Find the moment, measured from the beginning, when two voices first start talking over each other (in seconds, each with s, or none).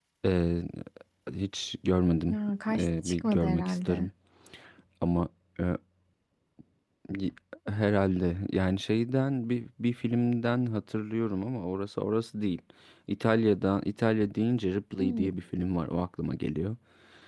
2.8 s